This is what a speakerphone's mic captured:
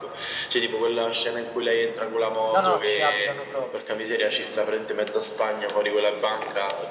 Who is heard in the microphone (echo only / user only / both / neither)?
both